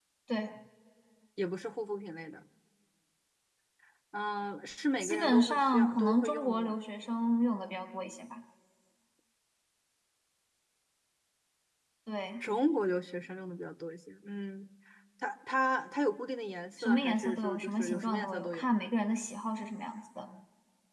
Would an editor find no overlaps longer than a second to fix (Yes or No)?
No